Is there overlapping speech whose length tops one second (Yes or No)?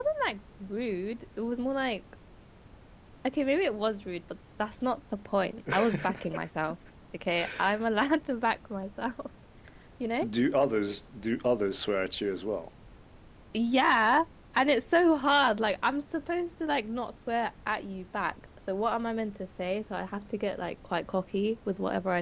No